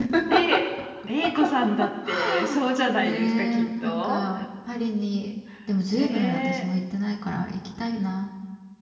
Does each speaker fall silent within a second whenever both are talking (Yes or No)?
No